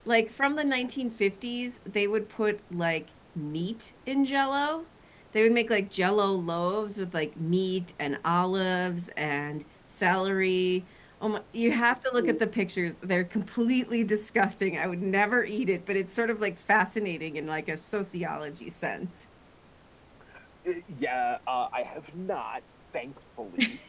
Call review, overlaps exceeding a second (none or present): none